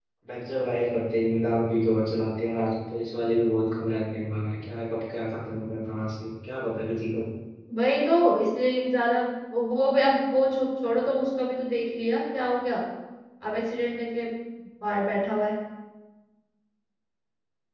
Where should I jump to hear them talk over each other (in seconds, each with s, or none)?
none